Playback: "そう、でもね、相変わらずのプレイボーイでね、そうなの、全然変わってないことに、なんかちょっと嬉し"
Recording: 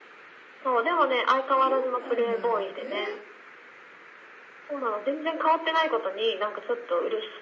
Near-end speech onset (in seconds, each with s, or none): 1.5 s